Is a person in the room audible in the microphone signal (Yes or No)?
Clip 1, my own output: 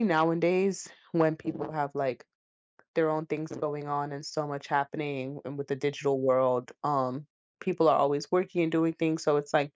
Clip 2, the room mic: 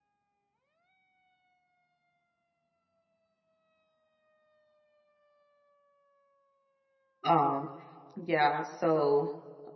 Yes